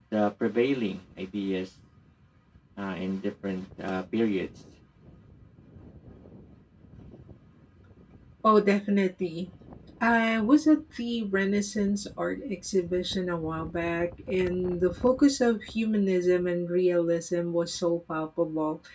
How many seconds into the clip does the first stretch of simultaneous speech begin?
none

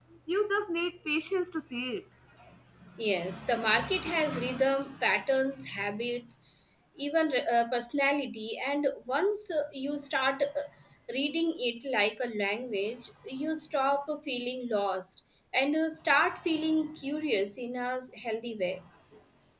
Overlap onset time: none

